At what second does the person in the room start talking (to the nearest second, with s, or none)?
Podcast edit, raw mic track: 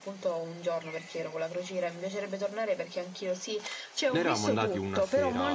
4 s